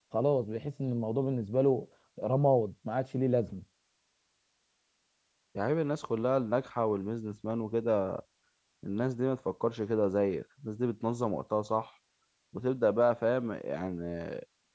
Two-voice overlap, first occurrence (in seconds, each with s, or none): none